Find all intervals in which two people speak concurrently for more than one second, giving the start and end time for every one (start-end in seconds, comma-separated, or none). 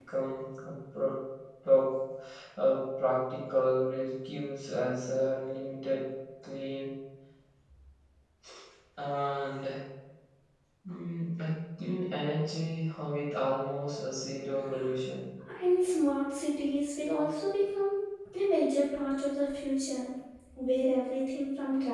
none